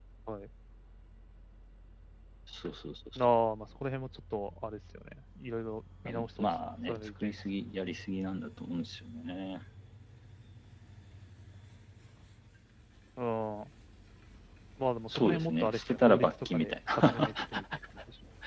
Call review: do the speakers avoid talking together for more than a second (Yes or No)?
No